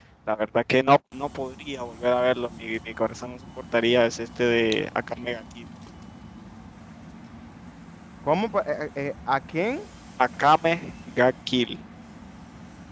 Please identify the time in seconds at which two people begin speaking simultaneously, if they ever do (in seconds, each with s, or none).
none